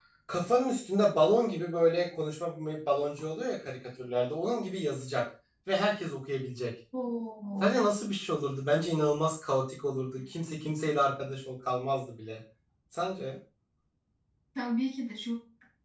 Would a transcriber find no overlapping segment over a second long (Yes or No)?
Yes